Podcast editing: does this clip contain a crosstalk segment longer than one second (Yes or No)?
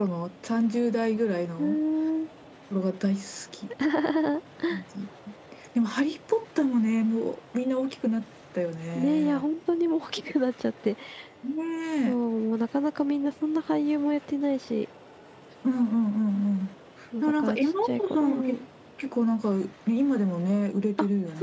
Yes